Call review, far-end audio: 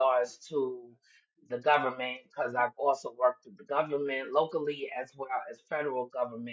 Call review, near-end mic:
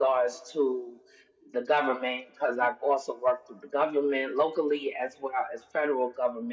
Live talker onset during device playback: none

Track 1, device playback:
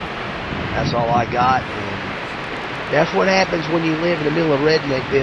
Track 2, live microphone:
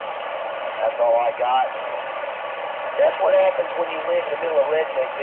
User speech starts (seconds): none

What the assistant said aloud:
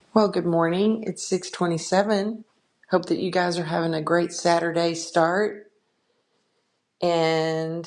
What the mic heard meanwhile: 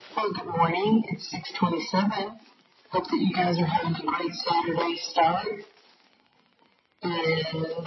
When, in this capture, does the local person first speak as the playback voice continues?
none

